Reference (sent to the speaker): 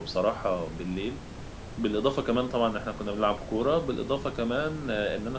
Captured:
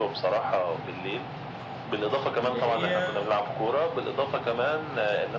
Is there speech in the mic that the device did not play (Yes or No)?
Yes